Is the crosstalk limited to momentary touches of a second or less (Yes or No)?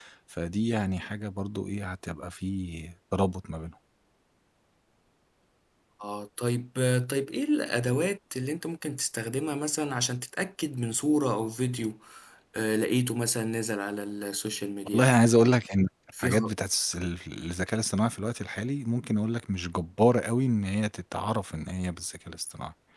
Yes